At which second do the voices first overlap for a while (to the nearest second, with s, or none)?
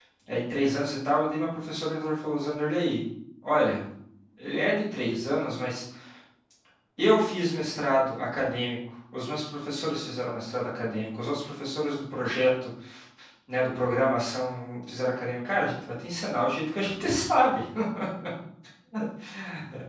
none